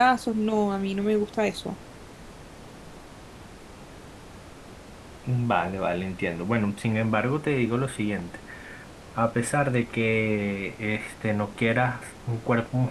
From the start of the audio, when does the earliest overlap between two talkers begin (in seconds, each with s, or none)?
none